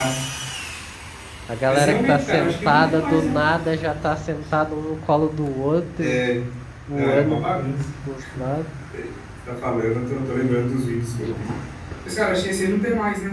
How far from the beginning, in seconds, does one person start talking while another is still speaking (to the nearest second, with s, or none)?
2 s